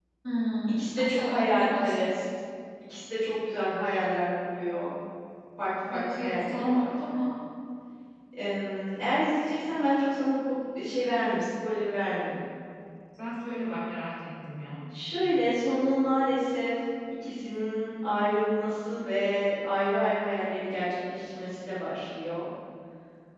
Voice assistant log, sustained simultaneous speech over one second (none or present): present